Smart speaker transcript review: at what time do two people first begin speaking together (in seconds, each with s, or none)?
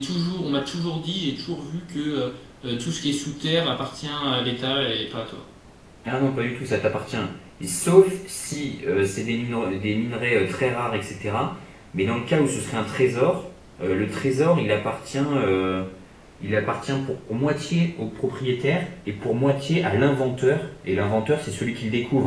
none